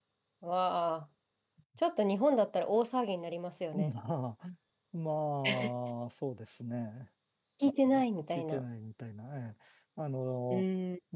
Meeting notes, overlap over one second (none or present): none